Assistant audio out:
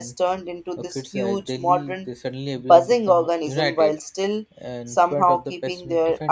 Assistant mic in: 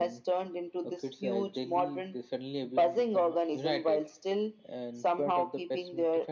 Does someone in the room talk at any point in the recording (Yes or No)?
No